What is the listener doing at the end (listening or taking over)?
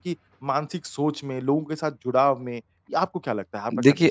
taking over